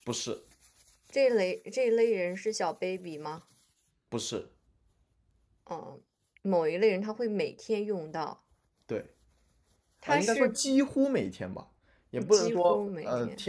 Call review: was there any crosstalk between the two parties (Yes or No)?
Yes